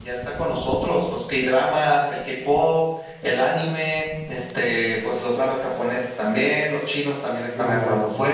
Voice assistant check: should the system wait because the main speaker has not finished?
Yes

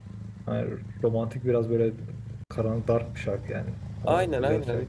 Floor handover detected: Yes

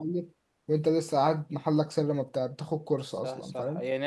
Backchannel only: No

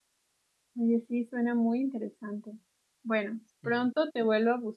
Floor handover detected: No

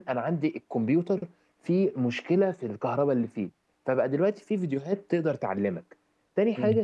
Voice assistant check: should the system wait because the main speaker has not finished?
Yes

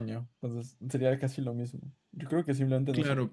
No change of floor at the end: No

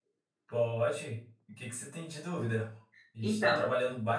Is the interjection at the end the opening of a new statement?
No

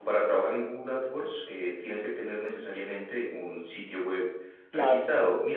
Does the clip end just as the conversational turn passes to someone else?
No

